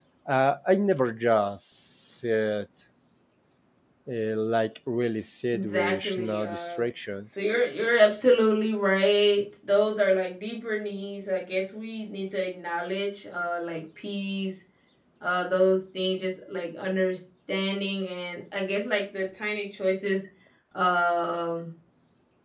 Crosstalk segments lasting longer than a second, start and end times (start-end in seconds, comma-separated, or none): 5.5-6.8